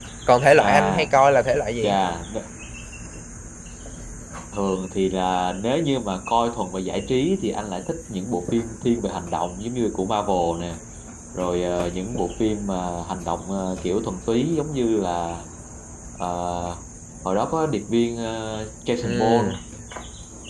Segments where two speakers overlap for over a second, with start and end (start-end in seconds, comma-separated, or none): none